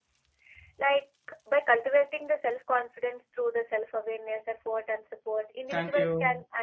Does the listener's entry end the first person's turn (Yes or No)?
No